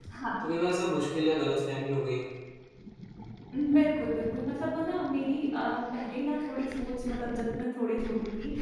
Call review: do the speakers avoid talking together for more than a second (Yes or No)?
Yes